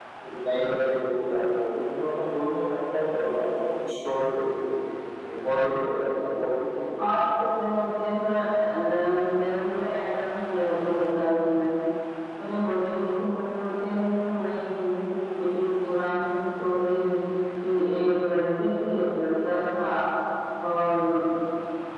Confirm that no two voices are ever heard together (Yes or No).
Yes